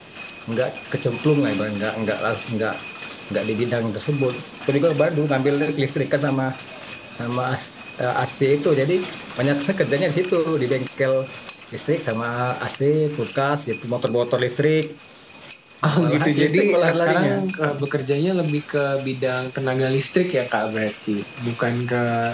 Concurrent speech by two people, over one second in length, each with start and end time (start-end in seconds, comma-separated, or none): 16.0-17.3